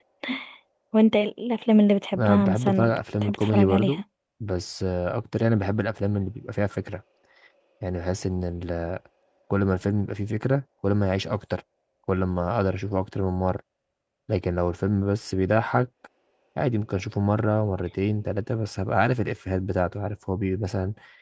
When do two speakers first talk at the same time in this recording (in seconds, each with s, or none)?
2.1 s